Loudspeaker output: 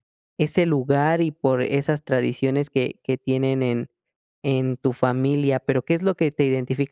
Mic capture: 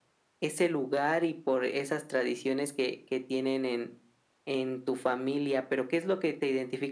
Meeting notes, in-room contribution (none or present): none